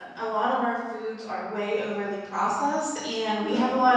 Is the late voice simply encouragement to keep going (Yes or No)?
Yes